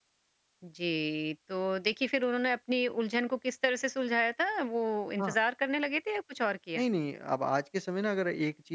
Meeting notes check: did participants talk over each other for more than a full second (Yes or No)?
No